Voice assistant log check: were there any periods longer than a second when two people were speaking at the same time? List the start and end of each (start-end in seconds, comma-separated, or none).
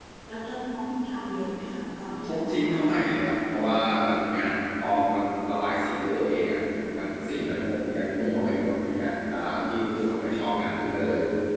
2.2-3.6